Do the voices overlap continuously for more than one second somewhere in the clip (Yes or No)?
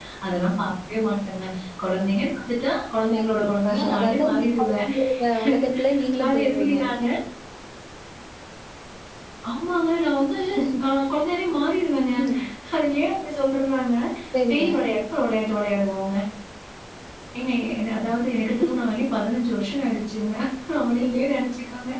Yes